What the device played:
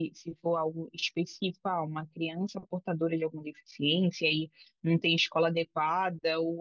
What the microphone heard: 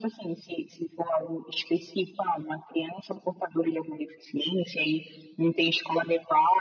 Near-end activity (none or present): none